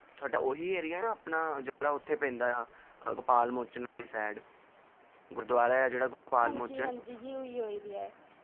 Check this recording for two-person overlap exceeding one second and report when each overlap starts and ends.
none

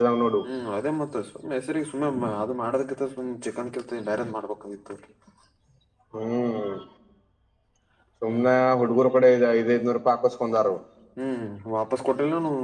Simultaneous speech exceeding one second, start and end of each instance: none

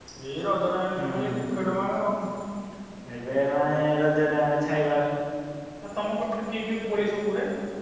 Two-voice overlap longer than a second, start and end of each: none

